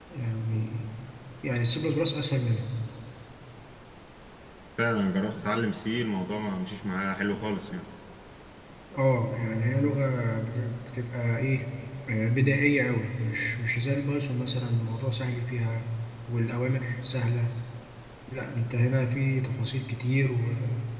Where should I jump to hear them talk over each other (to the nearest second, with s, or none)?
none